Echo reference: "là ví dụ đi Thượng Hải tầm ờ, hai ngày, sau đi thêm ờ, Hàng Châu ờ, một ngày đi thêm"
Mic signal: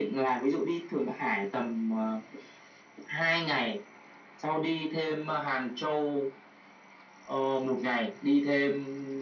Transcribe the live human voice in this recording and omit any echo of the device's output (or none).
none